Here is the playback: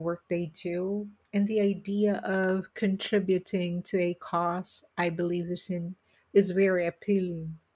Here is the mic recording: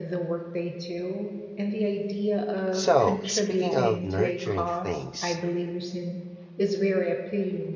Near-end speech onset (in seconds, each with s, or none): 2.7 s